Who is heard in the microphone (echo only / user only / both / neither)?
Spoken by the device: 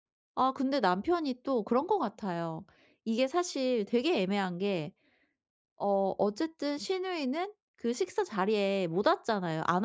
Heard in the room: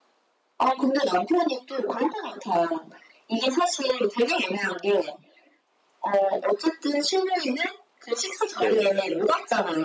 both